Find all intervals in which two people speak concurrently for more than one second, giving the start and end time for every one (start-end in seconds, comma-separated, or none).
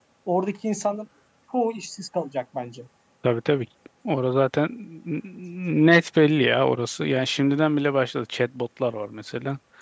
none